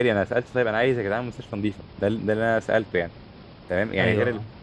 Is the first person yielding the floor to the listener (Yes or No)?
No